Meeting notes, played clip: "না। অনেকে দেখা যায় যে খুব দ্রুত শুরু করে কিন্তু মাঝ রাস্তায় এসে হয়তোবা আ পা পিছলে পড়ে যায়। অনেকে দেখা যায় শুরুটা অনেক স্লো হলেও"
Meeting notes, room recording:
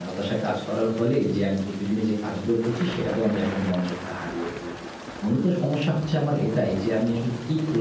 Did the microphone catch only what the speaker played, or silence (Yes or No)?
No